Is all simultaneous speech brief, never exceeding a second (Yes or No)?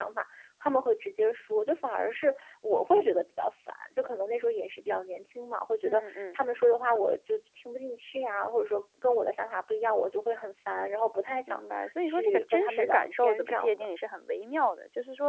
No